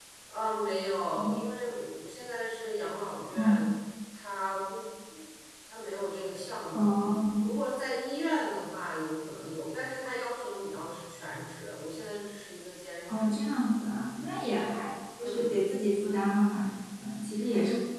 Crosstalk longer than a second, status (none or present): none